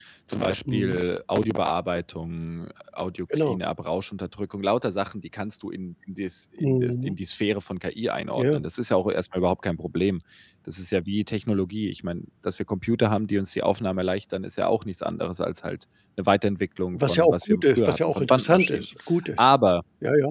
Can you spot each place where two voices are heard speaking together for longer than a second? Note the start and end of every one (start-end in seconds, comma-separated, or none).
16.9-18.9